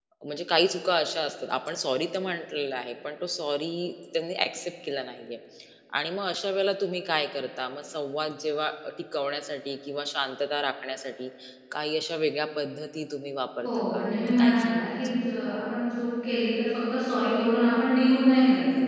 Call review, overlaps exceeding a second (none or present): present